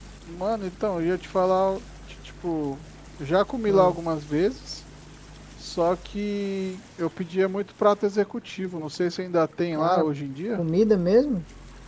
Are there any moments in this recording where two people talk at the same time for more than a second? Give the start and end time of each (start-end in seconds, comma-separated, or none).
none